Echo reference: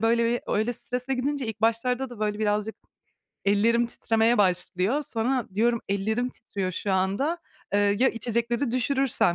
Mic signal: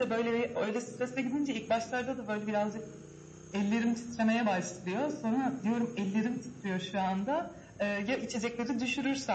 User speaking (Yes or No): No